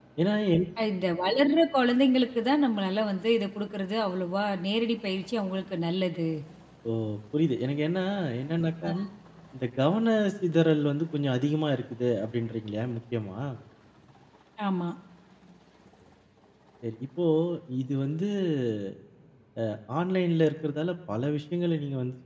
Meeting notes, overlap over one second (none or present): none